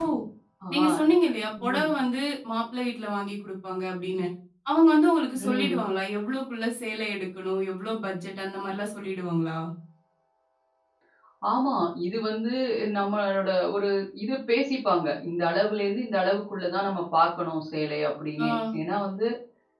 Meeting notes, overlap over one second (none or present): none